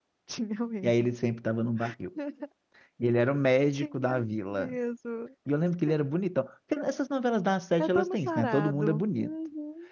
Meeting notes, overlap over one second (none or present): present